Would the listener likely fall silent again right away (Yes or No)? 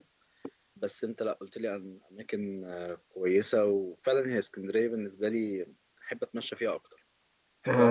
No